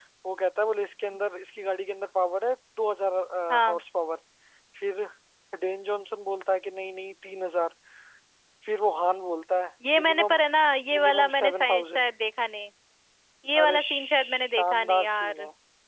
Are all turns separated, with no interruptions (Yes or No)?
No